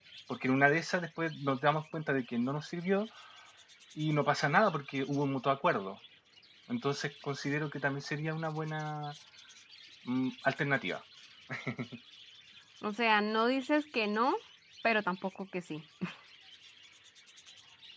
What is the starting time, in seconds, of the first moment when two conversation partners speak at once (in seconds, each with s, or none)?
none